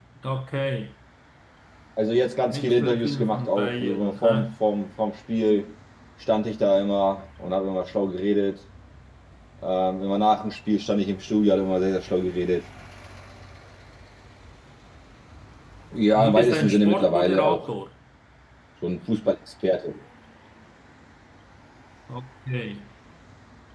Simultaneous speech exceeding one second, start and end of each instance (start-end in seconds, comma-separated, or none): 2.5-4.5, 16.2-17.7